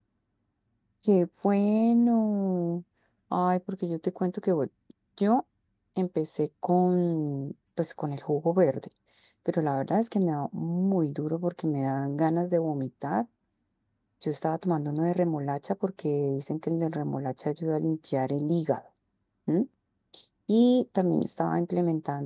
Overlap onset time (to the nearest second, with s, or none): none